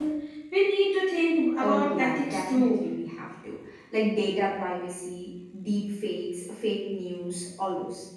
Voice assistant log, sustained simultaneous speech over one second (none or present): present